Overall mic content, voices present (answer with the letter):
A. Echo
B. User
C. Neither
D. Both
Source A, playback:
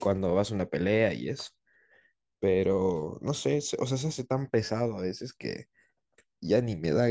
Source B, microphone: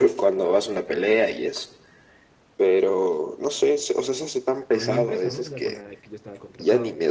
D